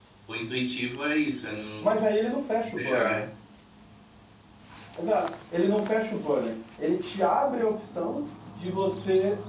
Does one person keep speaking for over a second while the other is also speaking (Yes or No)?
No